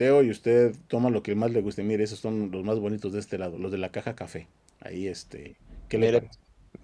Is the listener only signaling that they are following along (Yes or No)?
No